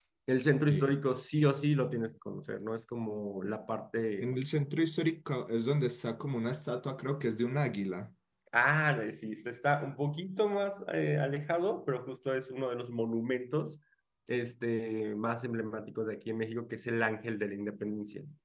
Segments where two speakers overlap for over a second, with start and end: none

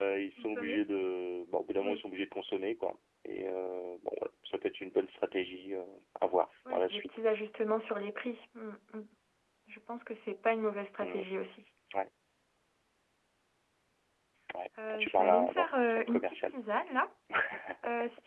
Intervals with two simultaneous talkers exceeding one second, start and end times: 14.9-16.5

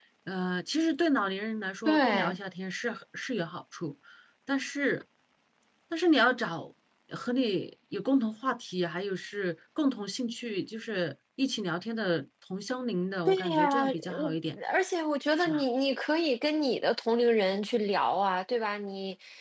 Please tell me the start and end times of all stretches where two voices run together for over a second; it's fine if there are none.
13.3-14.6

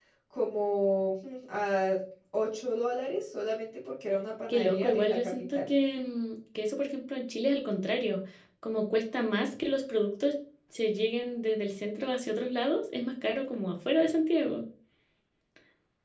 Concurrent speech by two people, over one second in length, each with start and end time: 4.5-5.7

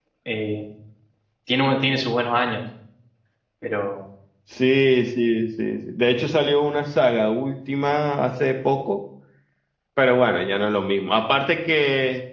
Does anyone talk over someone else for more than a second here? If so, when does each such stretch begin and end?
none

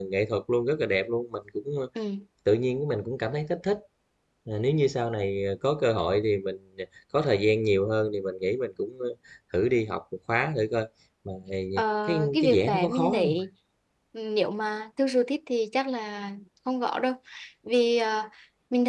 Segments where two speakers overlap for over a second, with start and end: 12.1-13.3

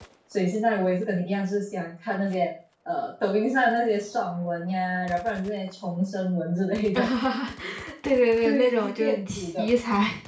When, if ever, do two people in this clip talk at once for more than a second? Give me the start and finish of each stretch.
8.4-9.7

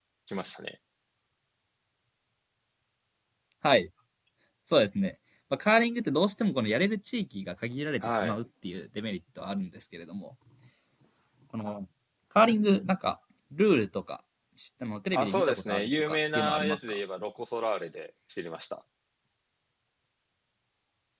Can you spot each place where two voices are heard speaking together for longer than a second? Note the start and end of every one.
15.1-17.0

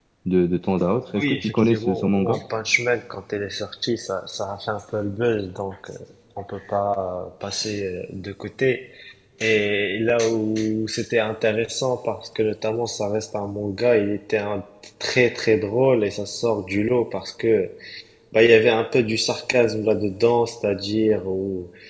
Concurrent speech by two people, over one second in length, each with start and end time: 1.2-2.4

